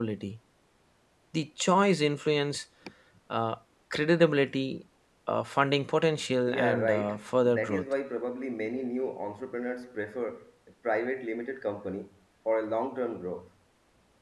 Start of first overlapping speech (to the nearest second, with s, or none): 6 s